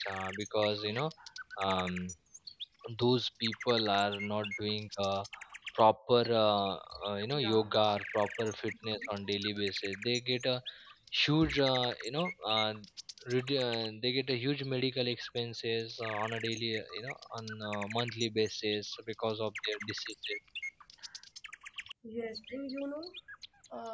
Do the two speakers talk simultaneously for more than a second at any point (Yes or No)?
No